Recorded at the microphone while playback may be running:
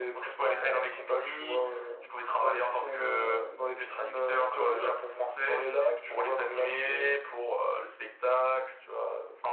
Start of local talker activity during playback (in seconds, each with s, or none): none